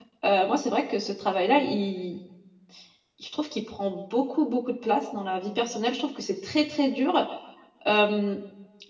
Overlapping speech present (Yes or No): No